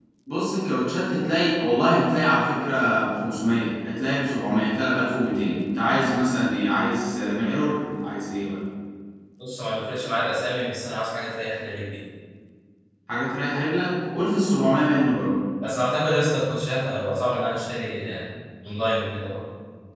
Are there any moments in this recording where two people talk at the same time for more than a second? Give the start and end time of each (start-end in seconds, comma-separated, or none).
none